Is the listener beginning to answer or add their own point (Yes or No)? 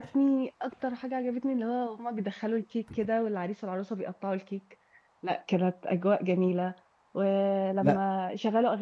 No